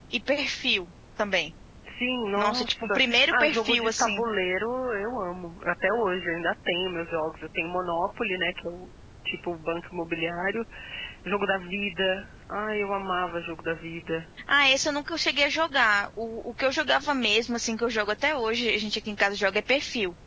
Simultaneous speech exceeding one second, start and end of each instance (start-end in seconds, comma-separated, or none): 2.4-4.2